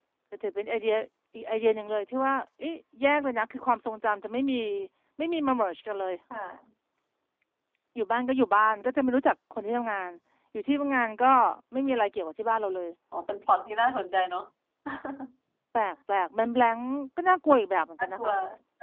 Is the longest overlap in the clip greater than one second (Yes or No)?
No